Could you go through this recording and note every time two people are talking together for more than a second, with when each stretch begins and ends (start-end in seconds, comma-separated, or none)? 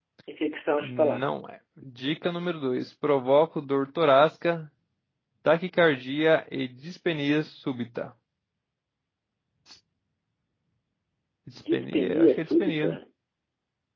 11.7-12.9